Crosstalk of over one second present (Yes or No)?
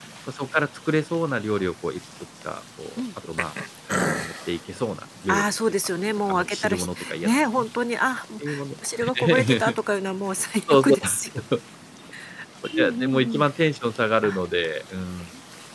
Yes